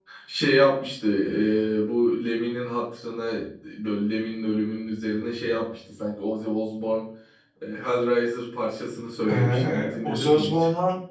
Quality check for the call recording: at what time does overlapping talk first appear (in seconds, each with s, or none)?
9.2 s